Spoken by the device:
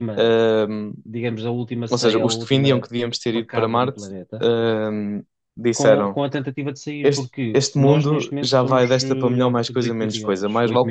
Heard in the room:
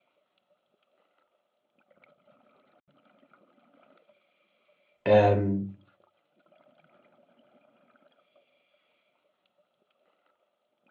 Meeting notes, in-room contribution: present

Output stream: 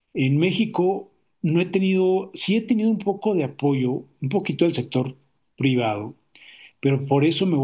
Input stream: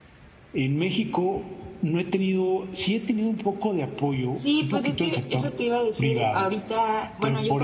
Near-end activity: present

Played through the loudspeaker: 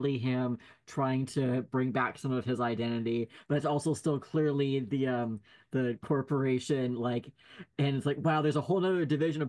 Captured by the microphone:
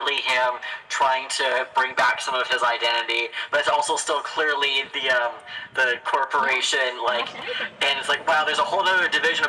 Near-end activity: present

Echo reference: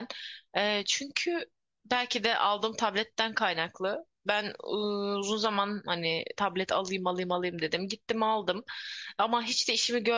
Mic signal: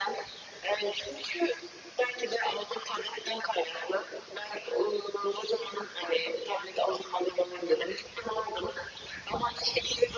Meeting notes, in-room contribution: none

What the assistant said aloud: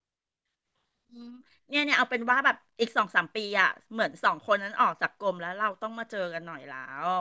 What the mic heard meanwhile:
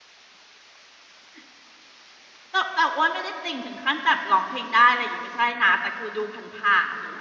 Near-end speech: present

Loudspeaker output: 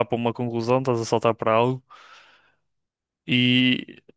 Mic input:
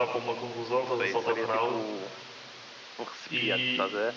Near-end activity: present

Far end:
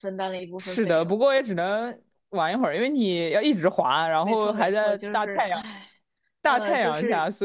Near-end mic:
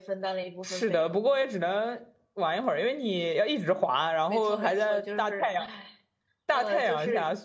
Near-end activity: none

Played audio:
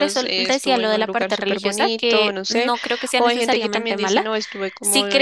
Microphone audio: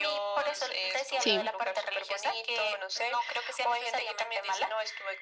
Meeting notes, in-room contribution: present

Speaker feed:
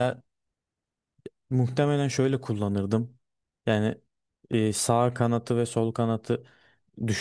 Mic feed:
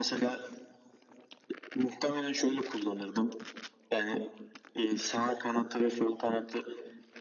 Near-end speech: none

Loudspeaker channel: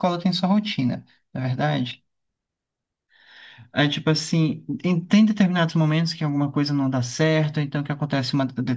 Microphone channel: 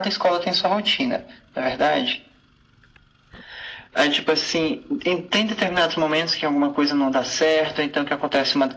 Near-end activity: none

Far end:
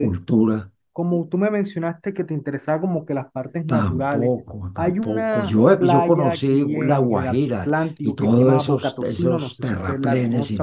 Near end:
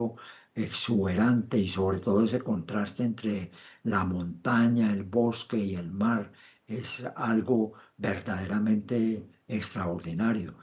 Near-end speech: present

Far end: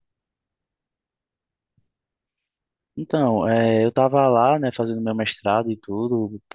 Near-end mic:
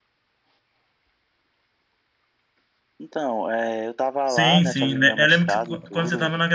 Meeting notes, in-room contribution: present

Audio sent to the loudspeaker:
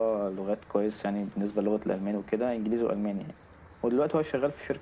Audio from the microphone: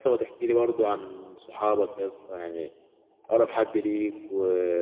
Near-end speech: present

